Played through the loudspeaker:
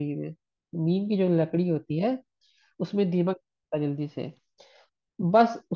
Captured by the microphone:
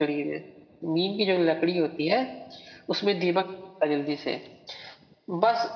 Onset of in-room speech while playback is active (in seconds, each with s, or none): none